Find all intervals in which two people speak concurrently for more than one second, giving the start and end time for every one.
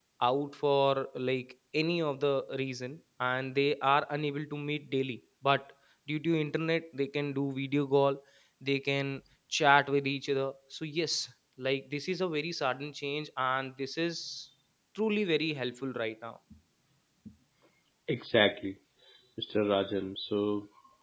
none

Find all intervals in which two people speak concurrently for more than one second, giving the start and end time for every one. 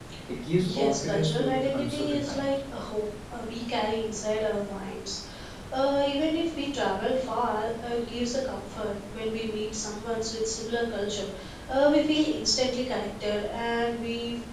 0.6-2.5

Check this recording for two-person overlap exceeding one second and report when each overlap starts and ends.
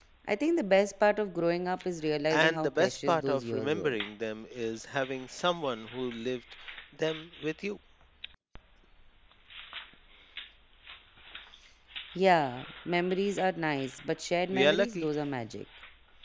2.3-4.0

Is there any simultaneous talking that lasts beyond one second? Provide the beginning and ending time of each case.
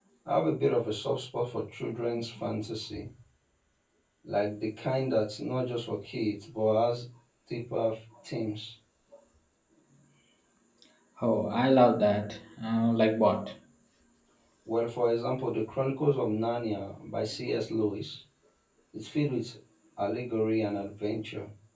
none

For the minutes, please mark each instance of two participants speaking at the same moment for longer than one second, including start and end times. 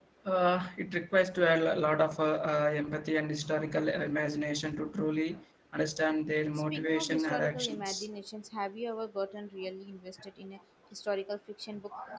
6.7-8.0

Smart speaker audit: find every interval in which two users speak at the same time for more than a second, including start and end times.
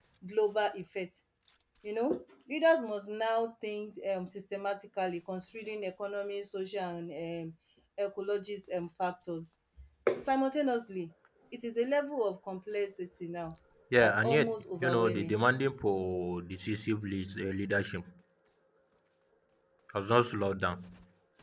14.0-15.3

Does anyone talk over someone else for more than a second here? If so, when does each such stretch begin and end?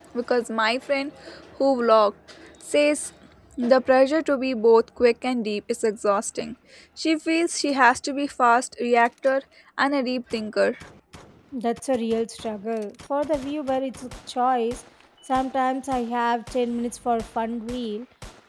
none

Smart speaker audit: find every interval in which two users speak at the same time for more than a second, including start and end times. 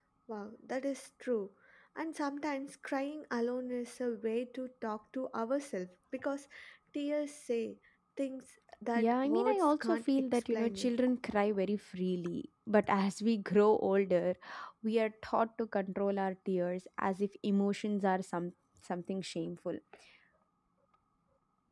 9.0-10.9

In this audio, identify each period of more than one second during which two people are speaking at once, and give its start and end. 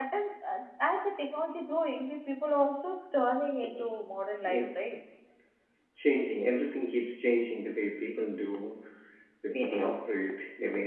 none

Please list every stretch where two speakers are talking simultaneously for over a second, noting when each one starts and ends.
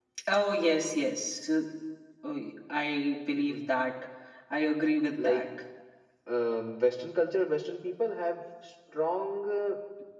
none

